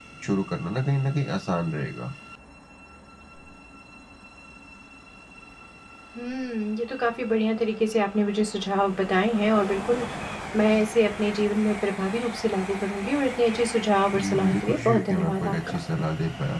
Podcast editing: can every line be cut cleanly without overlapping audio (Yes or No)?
No